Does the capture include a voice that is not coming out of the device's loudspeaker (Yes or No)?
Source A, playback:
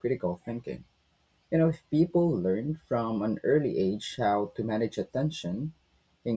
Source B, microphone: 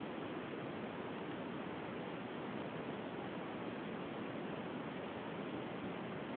No